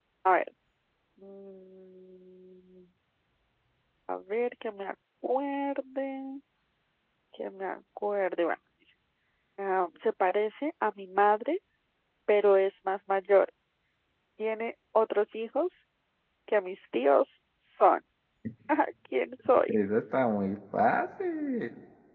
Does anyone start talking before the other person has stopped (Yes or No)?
No